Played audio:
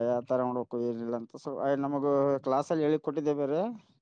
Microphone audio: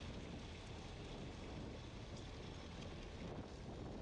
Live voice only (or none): none